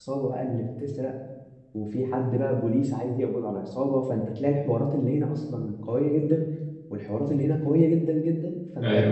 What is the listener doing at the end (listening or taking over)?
listening